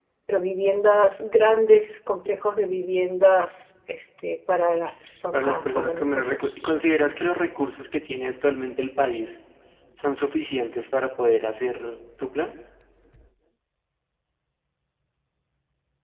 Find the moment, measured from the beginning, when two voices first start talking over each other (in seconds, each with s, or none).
5.3 s